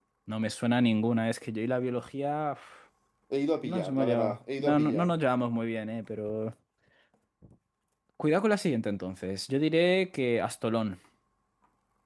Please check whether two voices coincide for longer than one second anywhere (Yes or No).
Yes